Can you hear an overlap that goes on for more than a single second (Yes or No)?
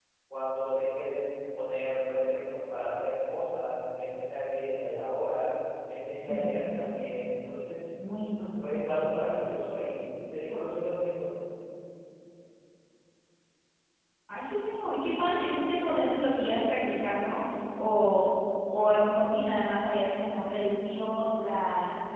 No